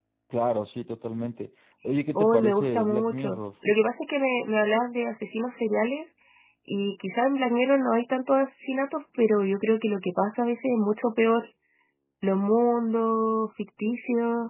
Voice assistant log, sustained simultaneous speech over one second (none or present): present